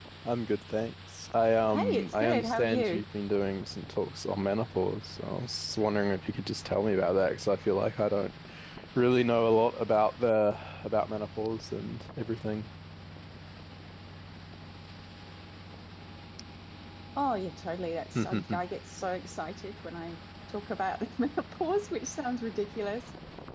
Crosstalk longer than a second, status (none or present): present